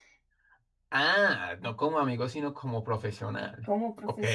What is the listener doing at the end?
taking over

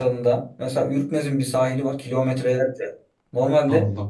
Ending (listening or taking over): listening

